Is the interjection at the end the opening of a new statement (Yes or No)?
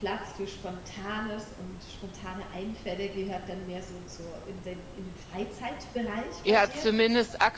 Yes